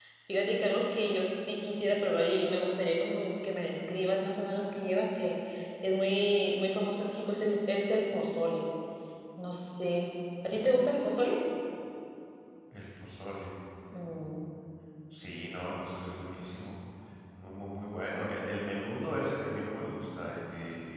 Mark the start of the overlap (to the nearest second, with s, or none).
none